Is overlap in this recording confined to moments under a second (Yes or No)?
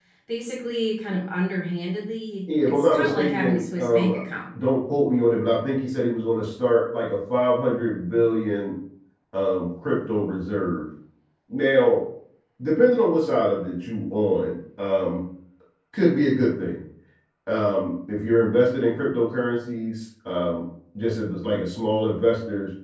No